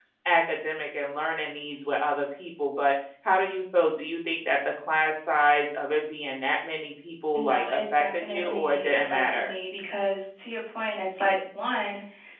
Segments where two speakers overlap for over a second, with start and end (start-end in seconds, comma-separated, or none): 7.3-9.5